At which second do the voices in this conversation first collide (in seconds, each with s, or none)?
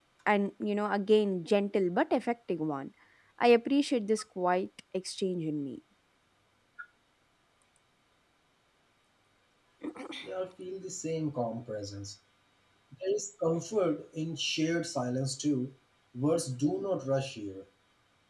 none